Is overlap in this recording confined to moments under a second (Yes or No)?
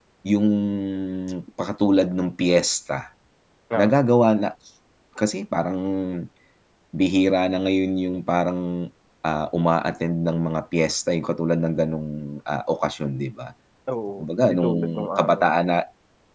No